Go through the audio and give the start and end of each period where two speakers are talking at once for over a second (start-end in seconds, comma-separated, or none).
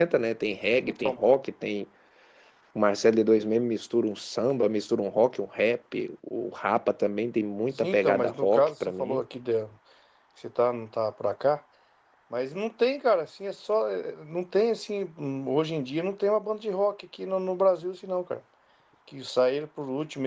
7.8-9.2